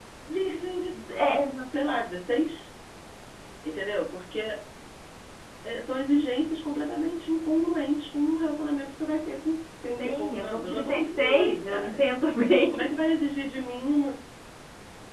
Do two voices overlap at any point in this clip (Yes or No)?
Yes